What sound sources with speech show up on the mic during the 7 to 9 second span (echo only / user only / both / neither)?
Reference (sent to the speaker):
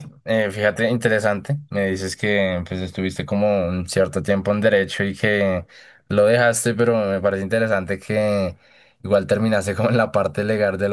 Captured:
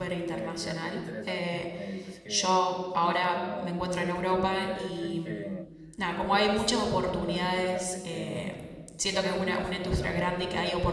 both